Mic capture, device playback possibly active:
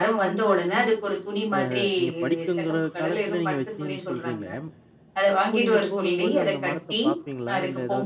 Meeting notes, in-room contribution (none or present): present